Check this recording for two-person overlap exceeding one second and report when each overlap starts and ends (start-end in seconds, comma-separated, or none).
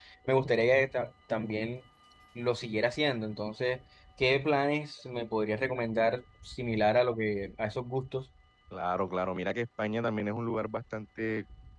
none